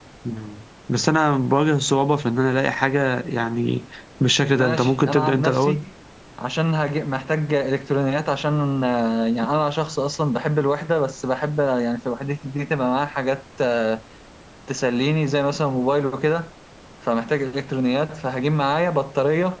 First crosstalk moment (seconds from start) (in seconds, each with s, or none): 4.6 s